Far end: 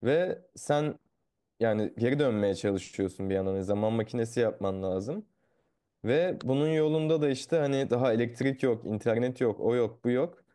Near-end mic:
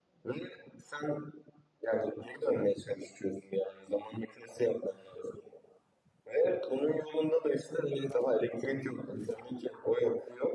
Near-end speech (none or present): none